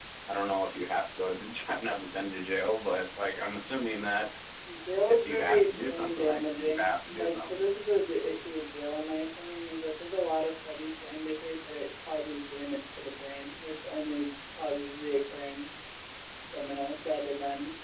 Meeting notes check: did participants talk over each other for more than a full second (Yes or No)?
Yes